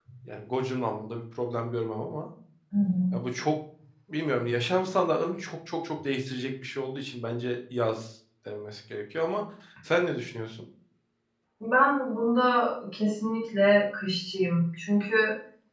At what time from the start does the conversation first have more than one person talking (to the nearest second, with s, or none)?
none